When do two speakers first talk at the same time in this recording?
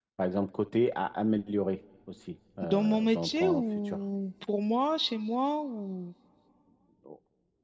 2.6 s

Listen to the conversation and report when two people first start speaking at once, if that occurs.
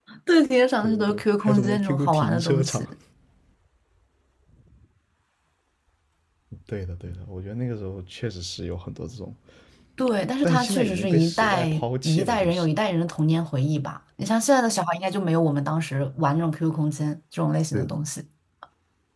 0.8 s

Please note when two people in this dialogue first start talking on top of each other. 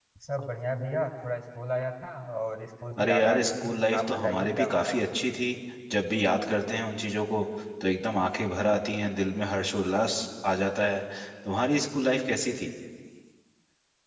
3.0 s

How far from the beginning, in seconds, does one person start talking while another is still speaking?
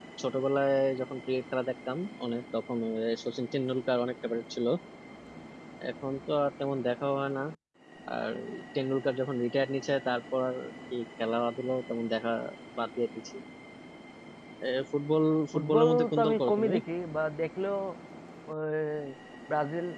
15.5 s

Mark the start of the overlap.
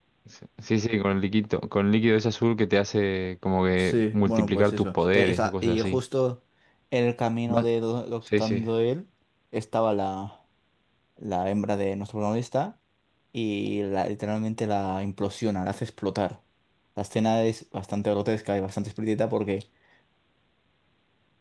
3.8 s

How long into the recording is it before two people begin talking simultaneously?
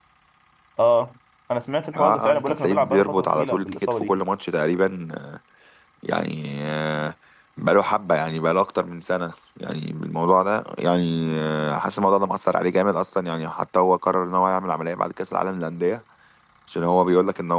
1.9 s

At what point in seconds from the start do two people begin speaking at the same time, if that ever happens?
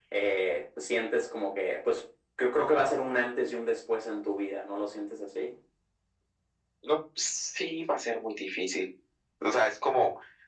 none

